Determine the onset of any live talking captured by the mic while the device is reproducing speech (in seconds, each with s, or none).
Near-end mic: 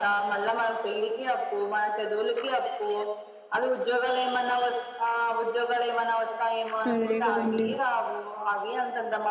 6.9 s